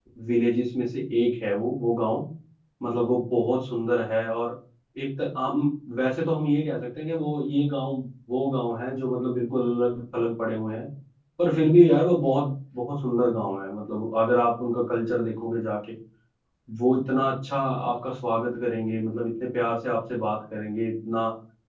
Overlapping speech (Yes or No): No